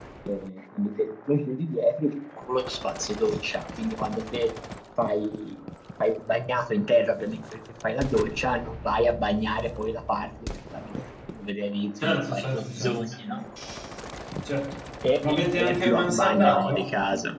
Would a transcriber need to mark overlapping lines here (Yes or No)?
Yes